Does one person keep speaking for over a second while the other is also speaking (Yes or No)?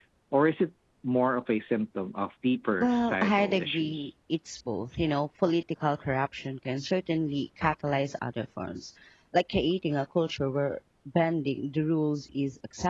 Yes